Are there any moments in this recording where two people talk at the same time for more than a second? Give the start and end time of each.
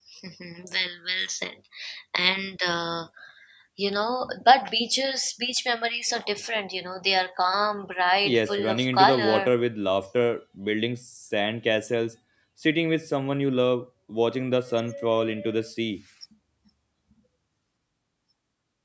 8.2-9.5

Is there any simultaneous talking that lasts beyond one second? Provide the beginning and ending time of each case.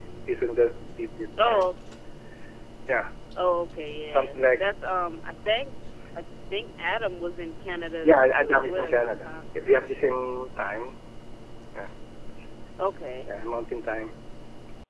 8.0-9.3

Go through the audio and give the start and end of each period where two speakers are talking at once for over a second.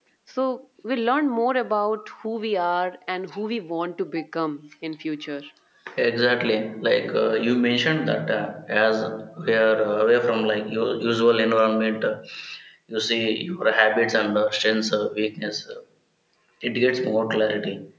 none

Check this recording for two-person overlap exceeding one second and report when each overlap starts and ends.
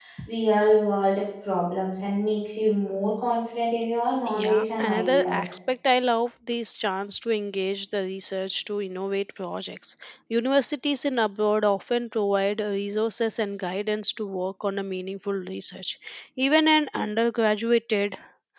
4.3-5.5

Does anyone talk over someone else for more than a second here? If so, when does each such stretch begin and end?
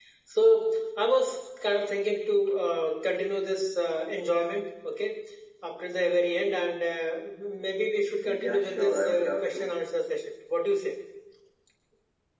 8.2-9.8

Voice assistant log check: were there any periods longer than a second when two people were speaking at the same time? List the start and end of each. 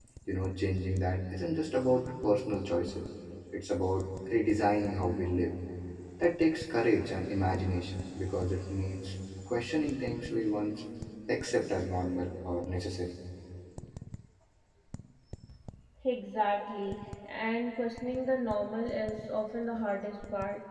none

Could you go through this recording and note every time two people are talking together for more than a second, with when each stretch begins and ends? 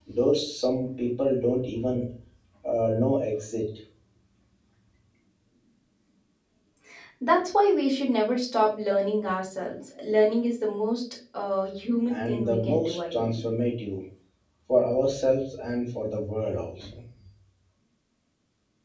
12.1-13.5

